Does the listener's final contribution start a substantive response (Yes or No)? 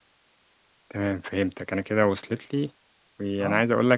No